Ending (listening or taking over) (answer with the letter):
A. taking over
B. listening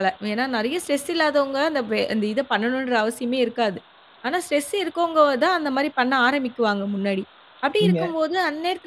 B